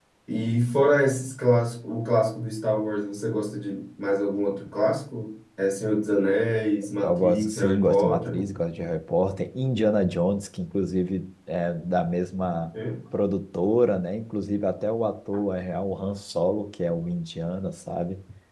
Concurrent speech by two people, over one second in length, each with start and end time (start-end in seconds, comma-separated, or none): 7.0-8.4